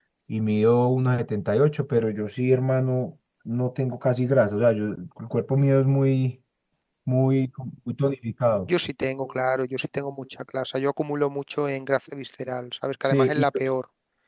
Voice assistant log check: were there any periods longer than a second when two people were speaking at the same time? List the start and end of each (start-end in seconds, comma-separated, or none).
none